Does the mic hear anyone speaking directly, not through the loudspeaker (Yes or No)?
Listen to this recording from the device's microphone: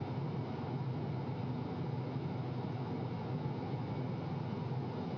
No